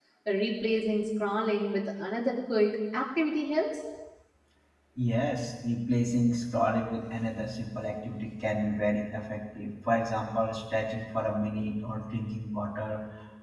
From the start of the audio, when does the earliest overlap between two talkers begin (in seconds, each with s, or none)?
none